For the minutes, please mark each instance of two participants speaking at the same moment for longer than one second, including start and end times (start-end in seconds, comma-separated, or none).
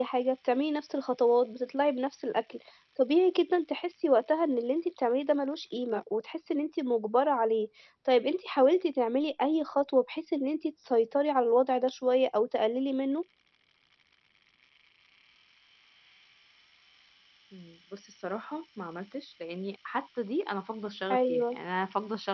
none